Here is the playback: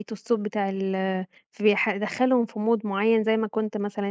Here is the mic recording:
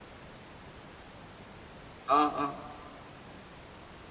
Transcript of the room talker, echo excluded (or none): آه، آه،